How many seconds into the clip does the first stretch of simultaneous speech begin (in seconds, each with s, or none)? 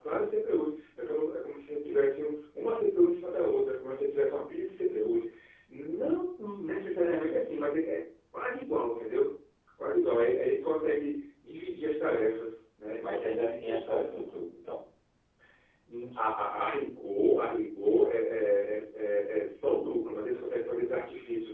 13.0 s